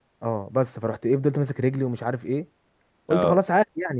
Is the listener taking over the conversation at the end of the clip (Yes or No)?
No